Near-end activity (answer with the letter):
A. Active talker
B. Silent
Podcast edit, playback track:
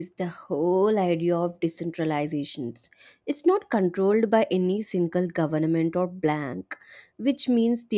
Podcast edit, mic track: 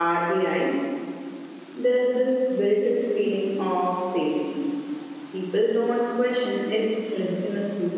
A